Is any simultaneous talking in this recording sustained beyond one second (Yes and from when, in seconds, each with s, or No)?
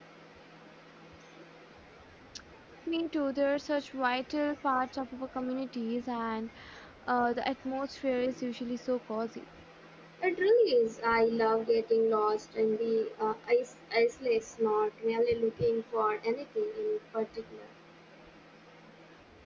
No